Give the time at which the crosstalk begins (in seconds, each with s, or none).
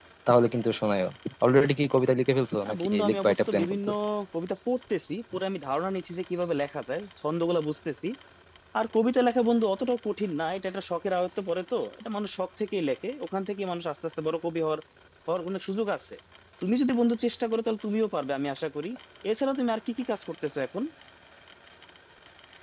2.6 s